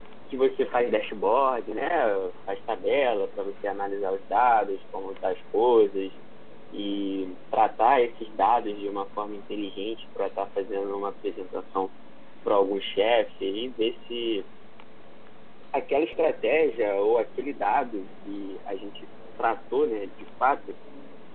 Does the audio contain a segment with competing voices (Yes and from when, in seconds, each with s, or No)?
No